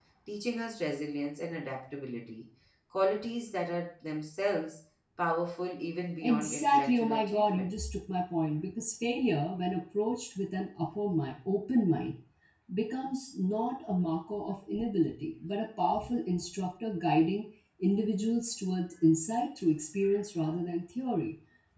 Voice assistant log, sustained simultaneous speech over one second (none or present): present